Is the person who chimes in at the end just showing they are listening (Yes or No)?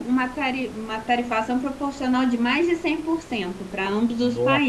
No